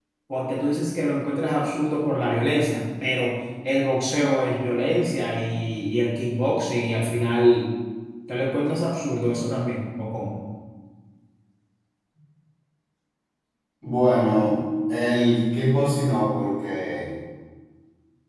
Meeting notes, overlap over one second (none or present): none